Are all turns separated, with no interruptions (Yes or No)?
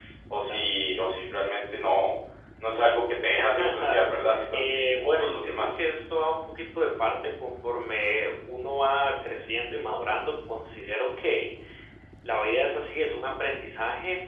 No